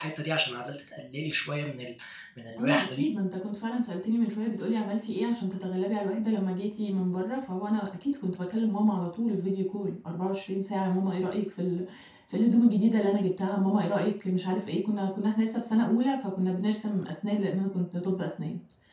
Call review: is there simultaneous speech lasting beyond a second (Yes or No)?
No